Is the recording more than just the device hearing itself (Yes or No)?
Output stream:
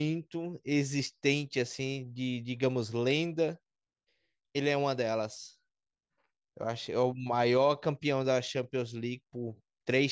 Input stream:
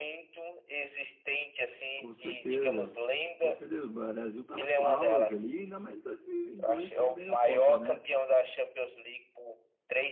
Yes